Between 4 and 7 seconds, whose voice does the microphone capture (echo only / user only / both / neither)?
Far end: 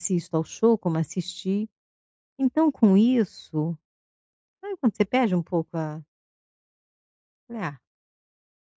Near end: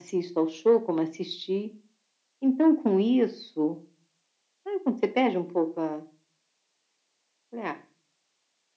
echo only